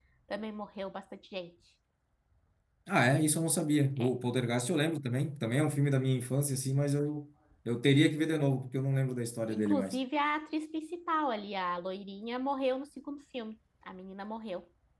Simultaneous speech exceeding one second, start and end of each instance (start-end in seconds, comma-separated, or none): none